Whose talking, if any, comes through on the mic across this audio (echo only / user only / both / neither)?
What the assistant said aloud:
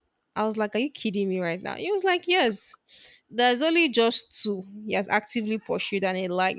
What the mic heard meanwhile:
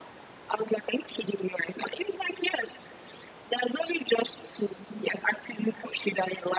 echo only